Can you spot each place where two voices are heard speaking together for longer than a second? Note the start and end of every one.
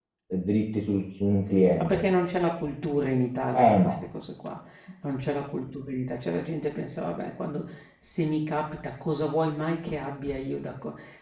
none

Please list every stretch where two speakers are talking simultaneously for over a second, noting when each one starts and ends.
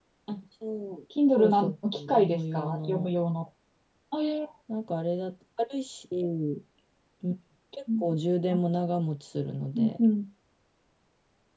1.4-3.1

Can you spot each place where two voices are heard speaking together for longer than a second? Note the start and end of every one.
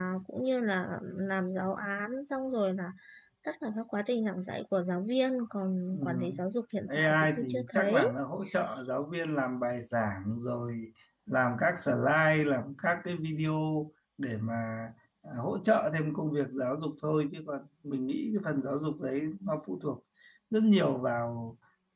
6.9-8.2

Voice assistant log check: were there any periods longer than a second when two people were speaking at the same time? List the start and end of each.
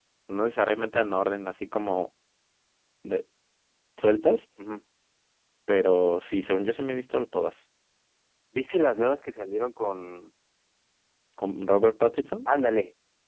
none

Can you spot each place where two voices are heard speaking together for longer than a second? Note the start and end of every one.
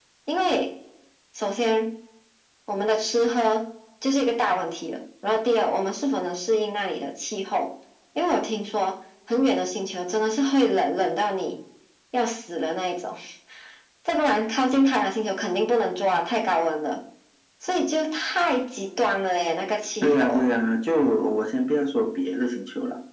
none

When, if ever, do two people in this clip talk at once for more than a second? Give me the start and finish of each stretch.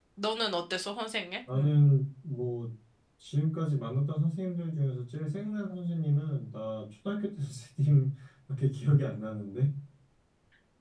none

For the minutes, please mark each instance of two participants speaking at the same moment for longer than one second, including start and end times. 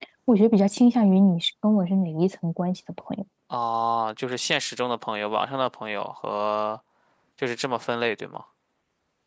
none

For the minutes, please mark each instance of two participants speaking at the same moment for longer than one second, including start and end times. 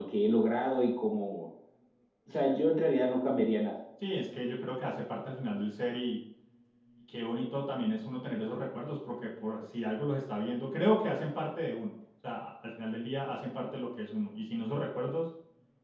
none

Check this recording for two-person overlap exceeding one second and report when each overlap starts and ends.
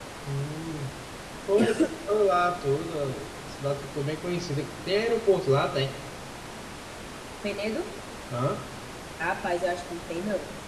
none

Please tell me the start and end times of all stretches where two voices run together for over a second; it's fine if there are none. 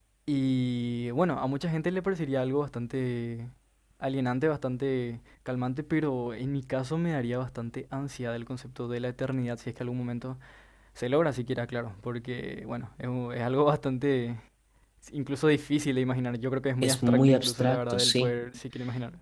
16.8-18.3

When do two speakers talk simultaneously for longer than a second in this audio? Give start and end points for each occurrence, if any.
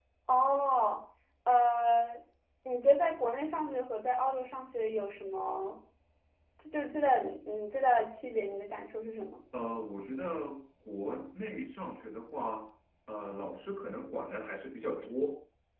none

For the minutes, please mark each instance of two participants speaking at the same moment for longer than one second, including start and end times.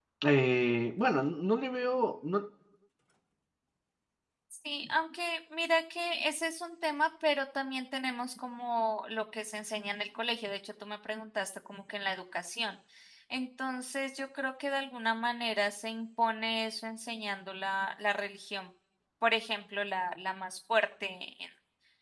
none

